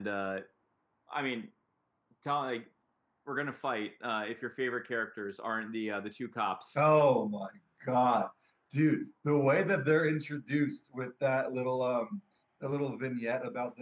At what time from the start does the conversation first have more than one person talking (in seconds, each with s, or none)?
none